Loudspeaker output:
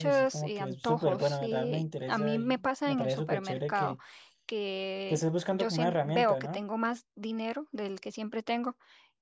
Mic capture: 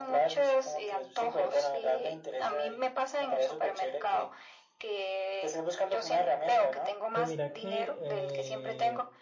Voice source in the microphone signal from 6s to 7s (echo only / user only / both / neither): echo only